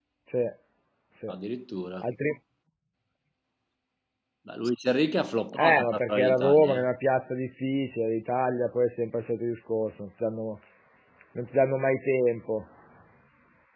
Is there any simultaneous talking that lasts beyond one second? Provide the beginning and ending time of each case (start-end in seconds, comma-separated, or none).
5.6-6.8